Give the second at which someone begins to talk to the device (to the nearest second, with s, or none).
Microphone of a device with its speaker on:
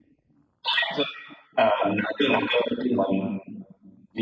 none